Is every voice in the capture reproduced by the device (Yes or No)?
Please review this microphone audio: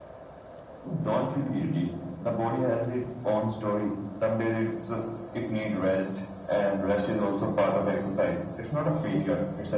Yes